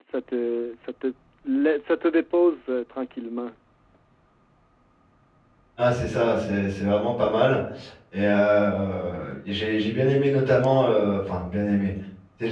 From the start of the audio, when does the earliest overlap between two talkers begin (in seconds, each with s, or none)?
none